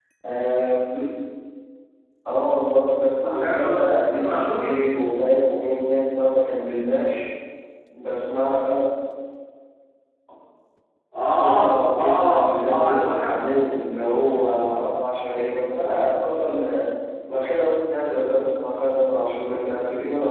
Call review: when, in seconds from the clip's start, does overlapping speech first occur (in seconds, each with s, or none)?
3.3 s